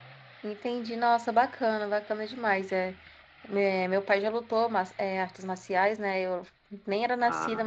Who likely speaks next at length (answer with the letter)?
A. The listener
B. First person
B